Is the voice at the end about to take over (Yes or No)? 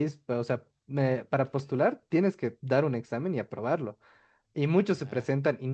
No